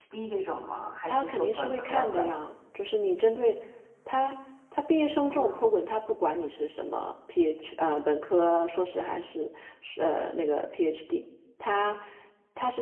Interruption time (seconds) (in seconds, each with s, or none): 1.1 s